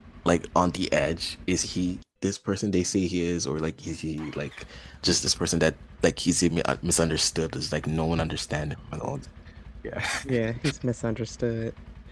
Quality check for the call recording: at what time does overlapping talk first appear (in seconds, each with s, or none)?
none